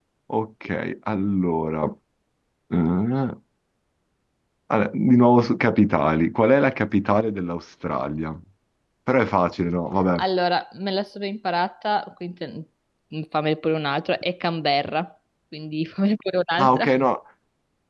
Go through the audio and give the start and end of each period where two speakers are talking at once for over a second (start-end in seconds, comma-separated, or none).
none